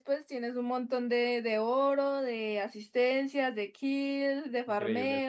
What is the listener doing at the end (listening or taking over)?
taking over